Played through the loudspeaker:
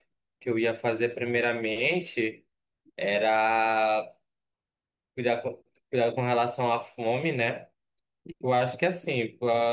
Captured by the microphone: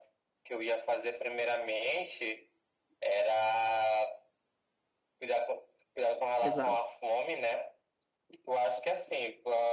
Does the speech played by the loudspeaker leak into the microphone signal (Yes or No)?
Yes